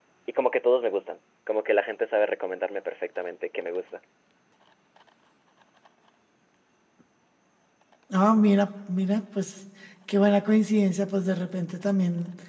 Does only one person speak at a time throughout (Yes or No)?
Yes